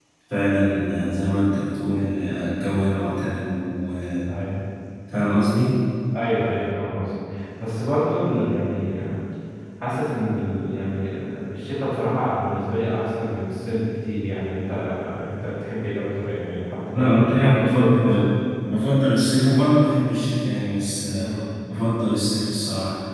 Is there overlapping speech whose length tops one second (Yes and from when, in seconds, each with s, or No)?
Yes, from 16.9 s